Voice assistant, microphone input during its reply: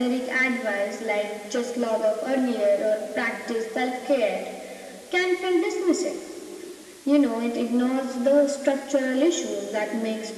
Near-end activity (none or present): none